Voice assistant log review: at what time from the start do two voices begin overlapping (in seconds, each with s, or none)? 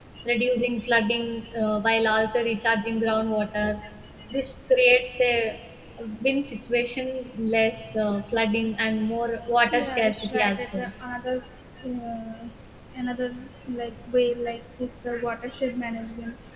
9.6 s